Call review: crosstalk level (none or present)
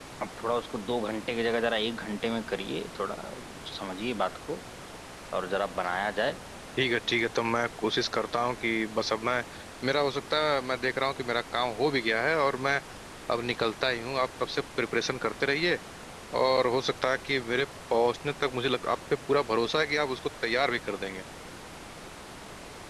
none